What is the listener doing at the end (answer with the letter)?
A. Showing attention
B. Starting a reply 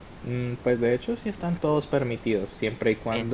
A